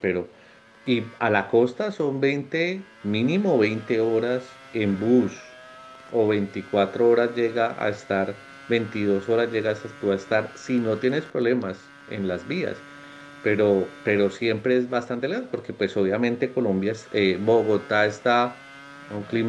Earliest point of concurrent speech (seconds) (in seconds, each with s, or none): none